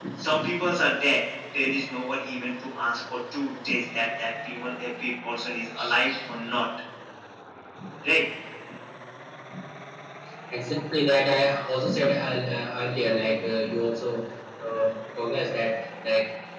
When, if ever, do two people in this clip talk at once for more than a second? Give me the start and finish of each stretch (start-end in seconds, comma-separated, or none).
none